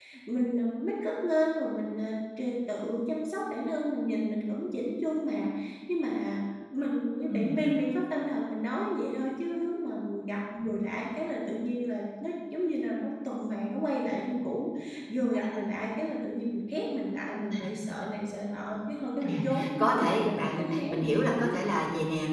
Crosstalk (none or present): present